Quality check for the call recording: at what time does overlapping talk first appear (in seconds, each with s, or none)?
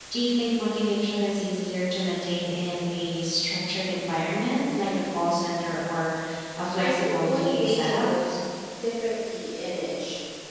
6.8 s